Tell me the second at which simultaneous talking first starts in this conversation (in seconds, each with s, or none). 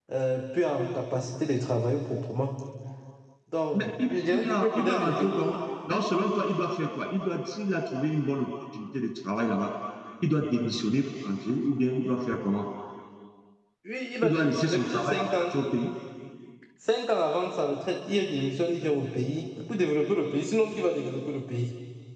3.7 s